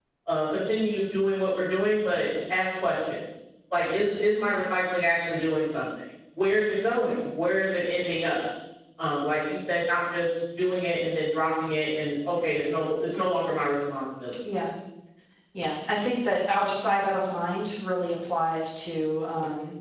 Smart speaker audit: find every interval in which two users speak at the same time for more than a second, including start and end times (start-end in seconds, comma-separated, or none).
none